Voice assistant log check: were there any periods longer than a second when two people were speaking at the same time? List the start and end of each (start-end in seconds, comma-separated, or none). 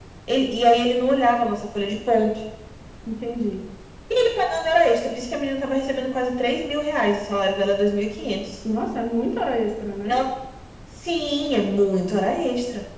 none